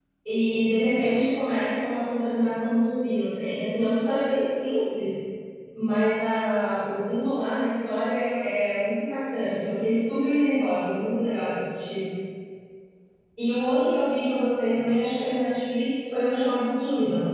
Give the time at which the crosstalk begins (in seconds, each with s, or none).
none